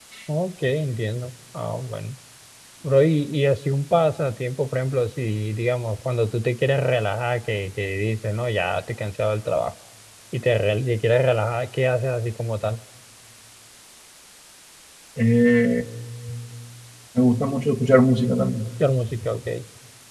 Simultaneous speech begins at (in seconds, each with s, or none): none